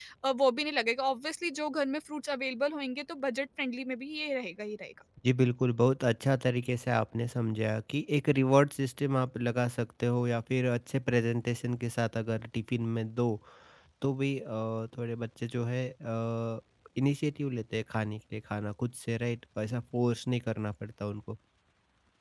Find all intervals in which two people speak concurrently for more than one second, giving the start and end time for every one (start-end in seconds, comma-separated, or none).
none